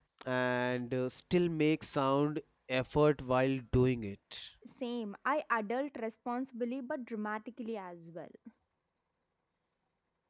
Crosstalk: none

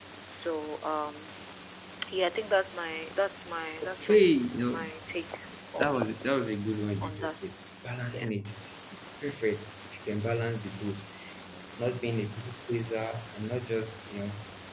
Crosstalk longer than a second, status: none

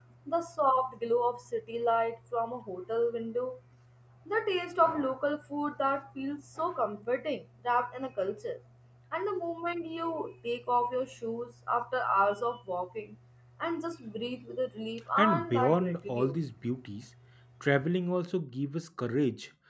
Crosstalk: present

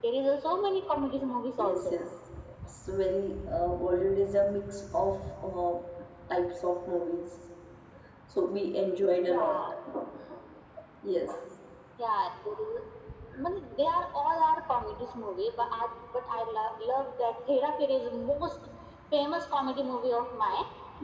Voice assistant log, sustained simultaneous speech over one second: none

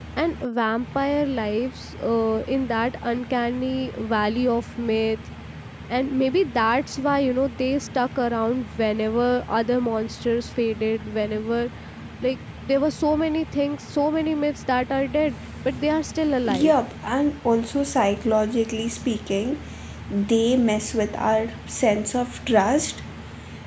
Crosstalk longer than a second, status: none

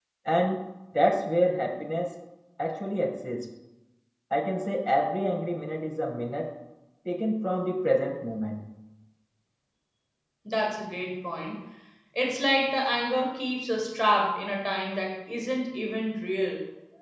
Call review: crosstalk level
none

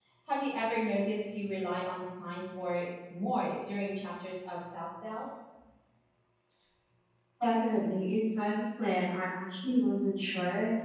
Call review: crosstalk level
none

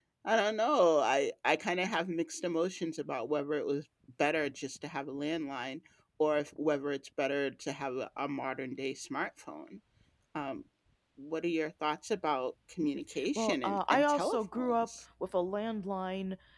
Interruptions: present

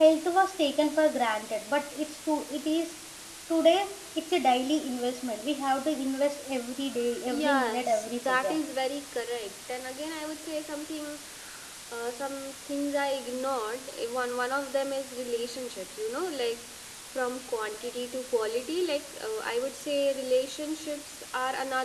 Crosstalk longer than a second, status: present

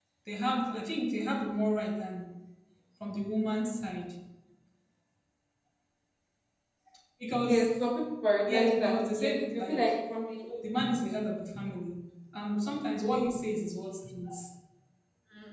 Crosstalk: present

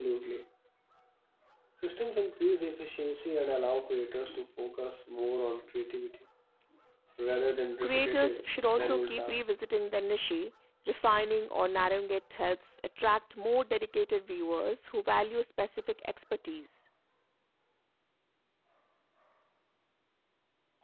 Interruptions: present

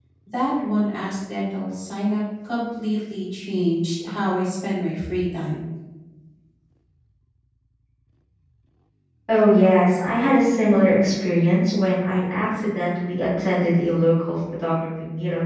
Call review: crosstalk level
none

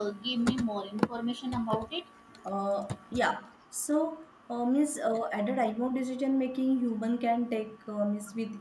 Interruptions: none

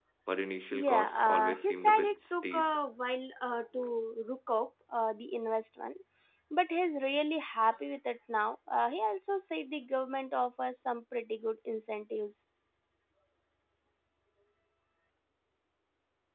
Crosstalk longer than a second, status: present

